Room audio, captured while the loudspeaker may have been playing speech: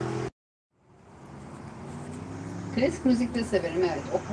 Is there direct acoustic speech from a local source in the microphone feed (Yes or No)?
Yes